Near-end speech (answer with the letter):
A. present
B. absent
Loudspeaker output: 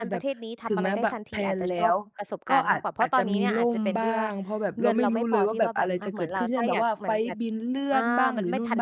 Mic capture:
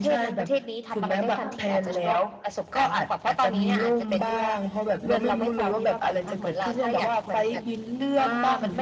A